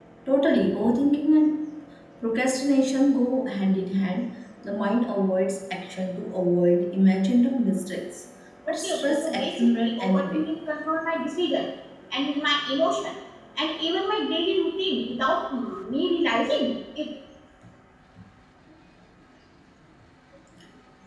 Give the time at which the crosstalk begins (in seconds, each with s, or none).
8.7 s